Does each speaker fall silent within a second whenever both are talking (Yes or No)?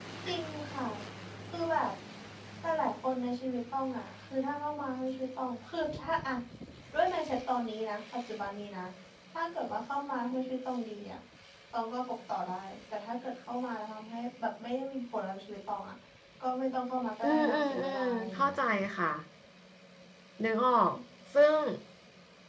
No